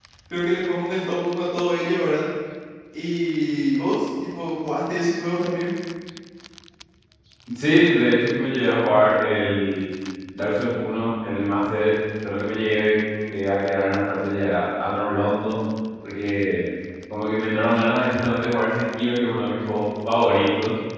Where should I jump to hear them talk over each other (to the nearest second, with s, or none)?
none